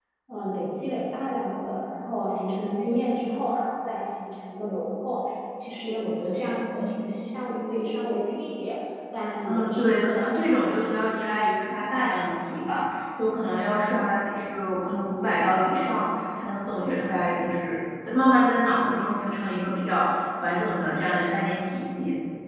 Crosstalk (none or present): present